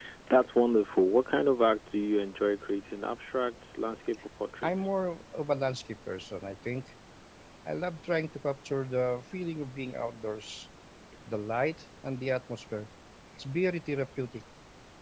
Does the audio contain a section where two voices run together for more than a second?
No

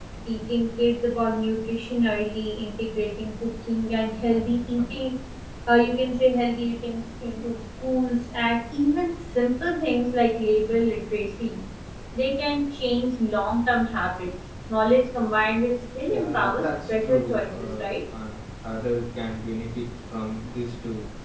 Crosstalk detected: Yes, from 16.1 s

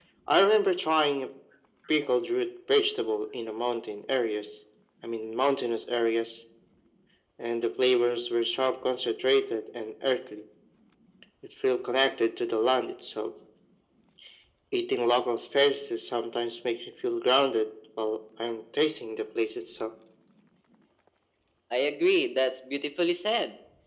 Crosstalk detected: No

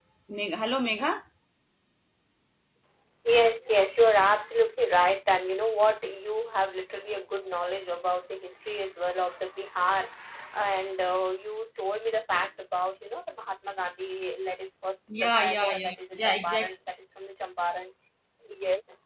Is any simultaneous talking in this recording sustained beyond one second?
Yes, from 15.1 s

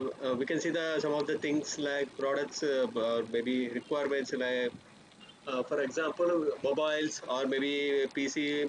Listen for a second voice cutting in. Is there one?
No

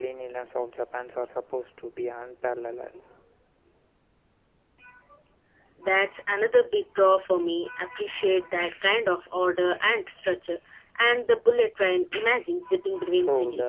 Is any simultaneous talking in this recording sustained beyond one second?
No

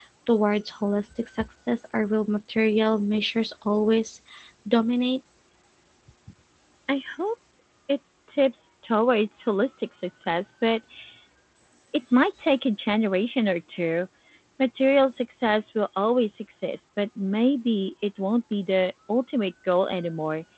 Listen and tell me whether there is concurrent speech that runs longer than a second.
No

